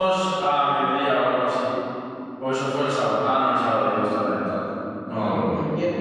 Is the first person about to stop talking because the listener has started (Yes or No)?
Yes